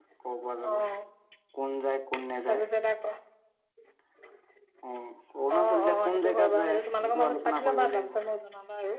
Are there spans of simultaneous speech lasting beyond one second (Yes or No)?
Yes